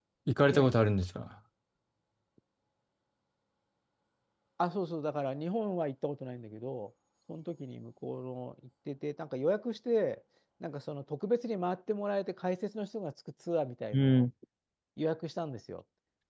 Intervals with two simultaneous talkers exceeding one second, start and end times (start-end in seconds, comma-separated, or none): none